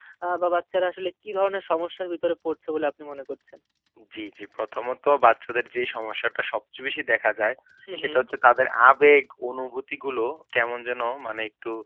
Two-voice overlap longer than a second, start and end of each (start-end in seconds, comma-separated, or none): none